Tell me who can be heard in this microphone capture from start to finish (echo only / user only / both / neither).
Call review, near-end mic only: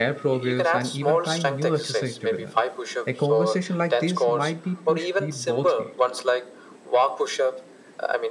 both